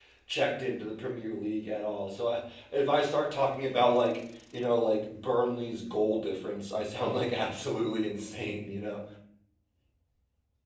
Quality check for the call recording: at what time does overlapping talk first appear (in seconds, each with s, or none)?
none